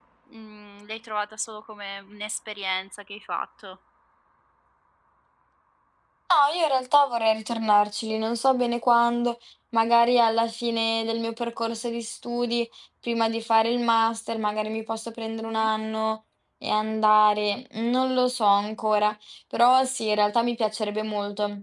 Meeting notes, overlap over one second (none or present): none